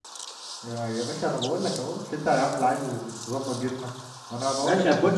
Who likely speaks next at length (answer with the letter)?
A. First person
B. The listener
B